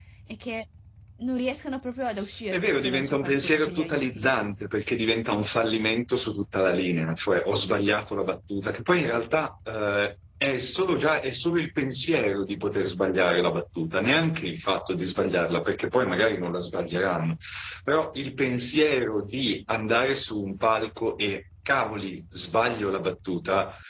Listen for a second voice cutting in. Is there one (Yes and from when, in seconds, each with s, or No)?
Yes, from 2.5 s